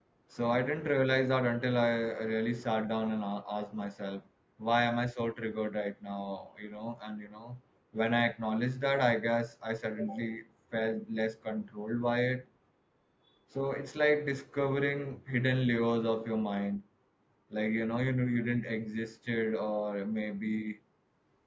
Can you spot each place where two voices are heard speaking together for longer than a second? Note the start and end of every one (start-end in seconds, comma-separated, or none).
none